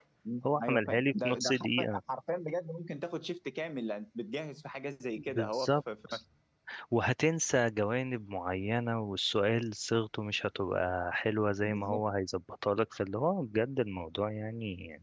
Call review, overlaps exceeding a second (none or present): present